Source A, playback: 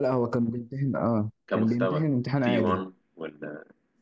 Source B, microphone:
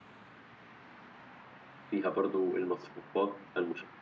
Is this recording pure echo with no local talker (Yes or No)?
No